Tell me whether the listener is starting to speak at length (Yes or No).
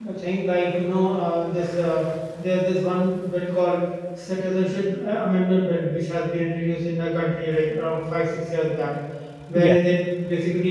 No